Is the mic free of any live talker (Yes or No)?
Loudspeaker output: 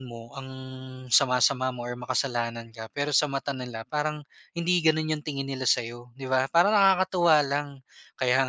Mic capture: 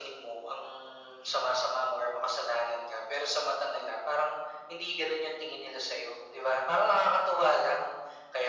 Yes